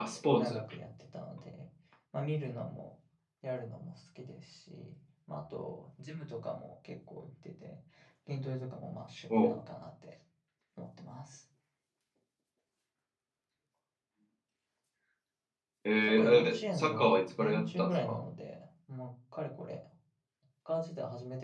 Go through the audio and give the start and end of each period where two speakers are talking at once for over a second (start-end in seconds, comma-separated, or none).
16.0-18.2